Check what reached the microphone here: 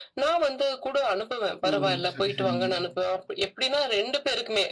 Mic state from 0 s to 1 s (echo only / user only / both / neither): echo only